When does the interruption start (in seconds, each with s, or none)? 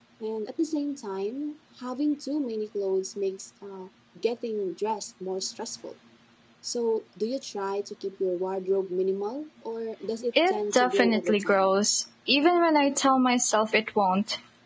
10.3 s